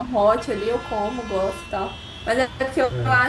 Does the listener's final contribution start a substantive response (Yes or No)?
No